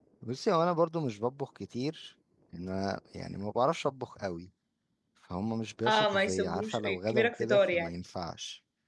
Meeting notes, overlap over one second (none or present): present